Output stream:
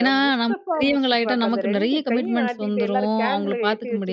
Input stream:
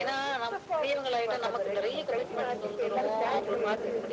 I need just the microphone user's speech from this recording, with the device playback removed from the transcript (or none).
கண்டிப்பாங்க. அதுவும் அந்த சின்ன புள்ளையில வந்து